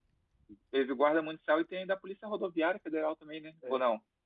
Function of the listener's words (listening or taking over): taking over